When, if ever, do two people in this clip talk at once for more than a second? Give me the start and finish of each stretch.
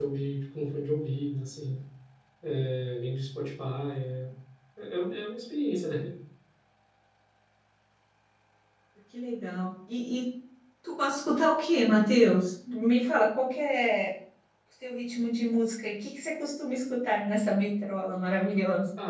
none

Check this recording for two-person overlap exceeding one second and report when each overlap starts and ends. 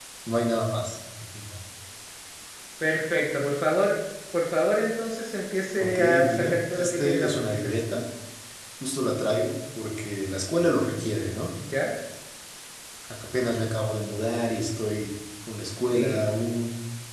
5.8-7.7

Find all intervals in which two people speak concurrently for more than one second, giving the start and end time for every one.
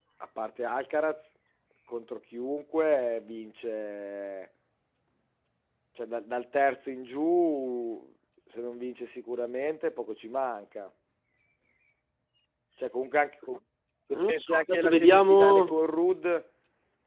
14.1-15.7

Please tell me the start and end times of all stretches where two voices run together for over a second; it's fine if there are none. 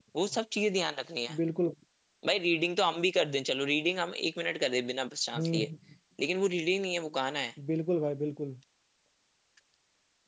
none

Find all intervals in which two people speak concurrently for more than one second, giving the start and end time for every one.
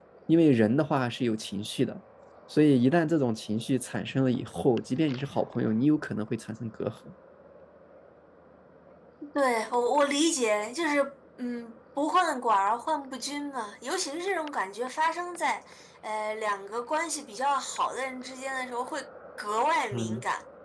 none

